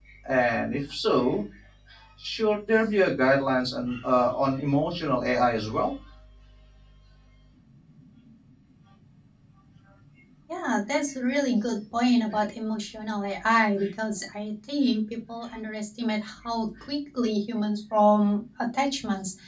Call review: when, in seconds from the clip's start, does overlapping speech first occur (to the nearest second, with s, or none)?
none